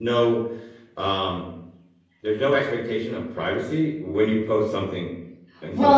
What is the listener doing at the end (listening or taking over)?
taking over